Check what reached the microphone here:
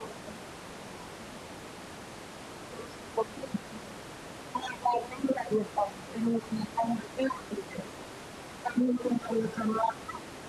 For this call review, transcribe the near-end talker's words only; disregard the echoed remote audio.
none

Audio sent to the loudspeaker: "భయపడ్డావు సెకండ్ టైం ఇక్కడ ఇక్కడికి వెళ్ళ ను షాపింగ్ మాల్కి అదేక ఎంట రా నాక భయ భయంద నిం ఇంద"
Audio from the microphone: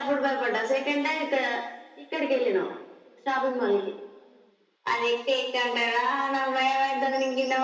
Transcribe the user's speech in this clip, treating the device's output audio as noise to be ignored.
none

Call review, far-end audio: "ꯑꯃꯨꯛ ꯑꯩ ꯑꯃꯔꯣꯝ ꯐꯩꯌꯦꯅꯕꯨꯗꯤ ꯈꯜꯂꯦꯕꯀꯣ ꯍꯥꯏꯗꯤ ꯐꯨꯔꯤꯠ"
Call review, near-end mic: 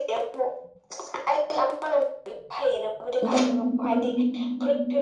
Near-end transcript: ꯎꯝ ꯎꯝ

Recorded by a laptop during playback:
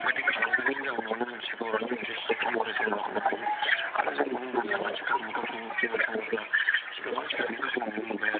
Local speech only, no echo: जोङो

